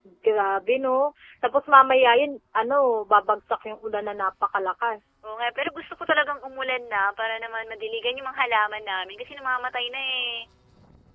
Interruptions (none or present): none